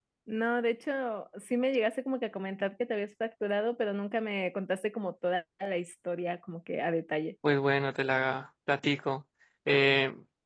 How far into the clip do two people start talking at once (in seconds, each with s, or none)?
none